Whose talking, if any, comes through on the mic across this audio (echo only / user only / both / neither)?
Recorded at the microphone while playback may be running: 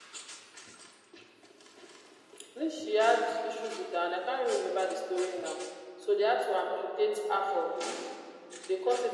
echo only